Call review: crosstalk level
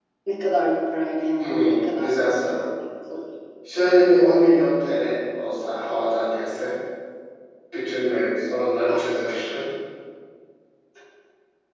present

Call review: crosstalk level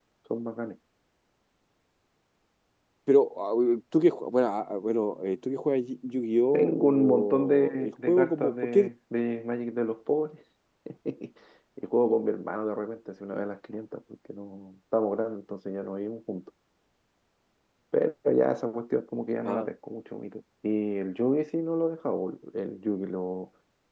present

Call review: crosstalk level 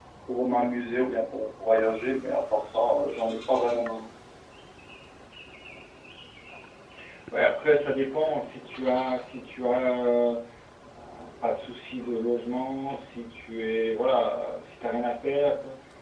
none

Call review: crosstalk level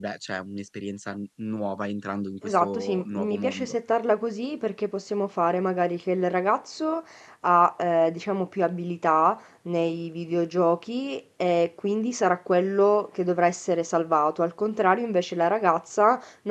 present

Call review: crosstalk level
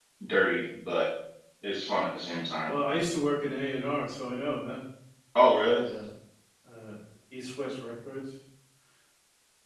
none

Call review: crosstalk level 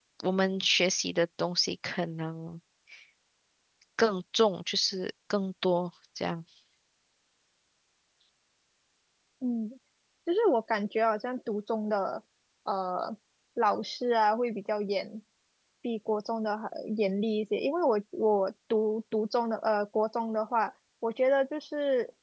none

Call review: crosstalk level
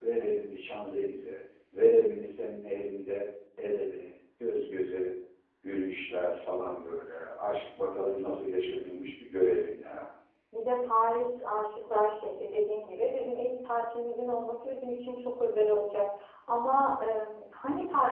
none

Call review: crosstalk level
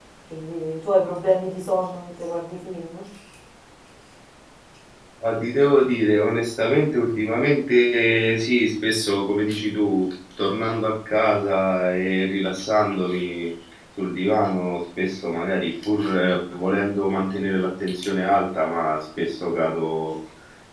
none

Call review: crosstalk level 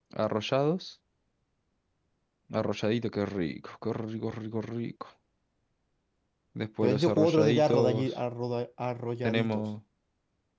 present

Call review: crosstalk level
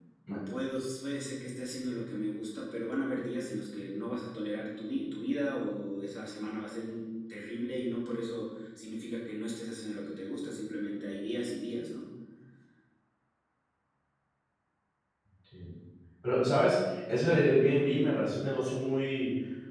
none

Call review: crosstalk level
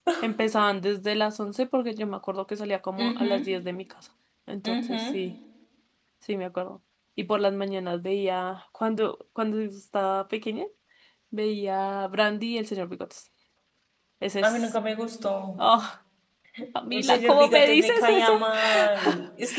present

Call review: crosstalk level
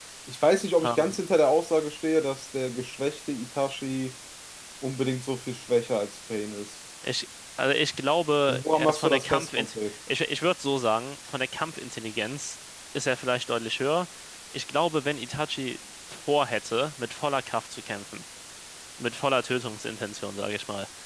present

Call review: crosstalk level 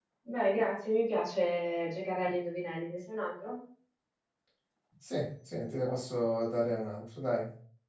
none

